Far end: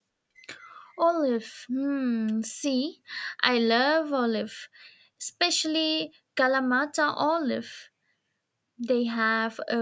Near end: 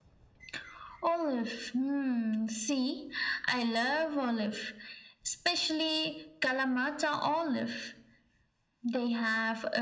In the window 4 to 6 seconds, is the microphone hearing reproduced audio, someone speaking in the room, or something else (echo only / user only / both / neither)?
echo only